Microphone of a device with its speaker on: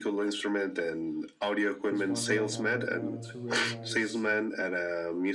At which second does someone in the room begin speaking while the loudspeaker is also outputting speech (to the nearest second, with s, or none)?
2 s